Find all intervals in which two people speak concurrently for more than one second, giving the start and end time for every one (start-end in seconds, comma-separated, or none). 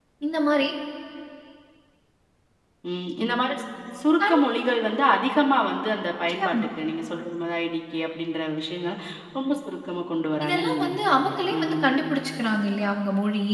10.4-11.8